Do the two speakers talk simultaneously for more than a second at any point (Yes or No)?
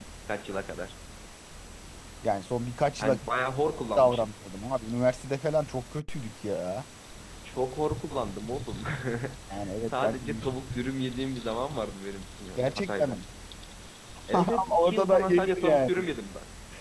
Yes